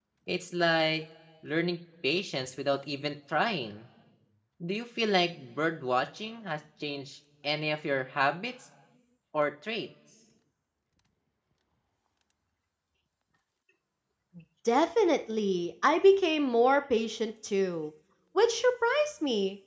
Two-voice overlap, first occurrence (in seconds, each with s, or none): none